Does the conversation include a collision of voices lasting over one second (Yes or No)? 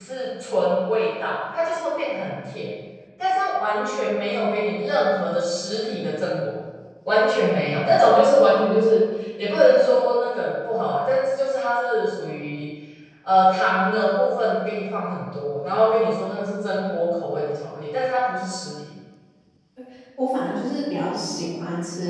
No